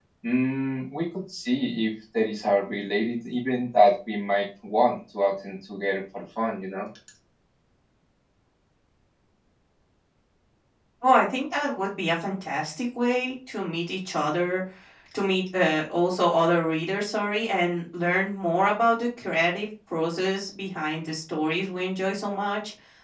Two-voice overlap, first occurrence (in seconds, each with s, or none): none